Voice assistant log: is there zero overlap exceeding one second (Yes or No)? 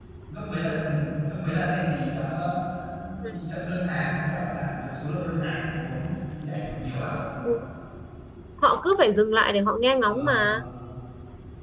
Yes